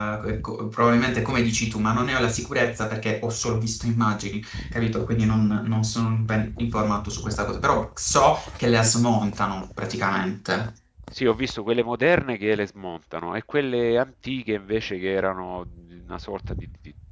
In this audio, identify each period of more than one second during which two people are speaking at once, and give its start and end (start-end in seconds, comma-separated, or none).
none